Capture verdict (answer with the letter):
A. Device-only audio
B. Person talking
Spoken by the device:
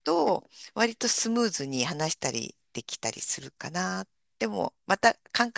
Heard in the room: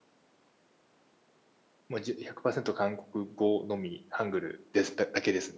B